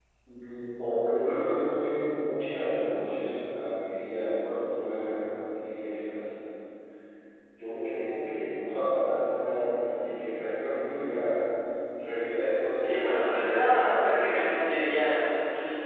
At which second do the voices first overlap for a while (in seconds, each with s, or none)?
12.8 s